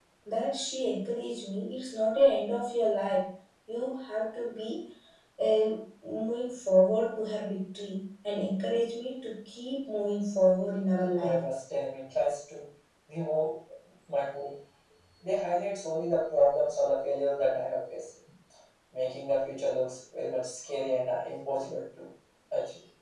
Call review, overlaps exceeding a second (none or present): none